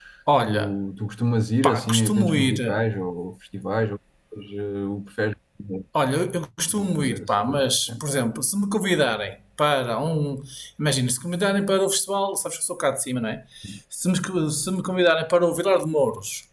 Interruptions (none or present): present